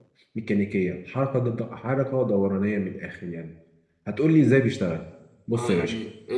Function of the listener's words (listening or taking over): taking over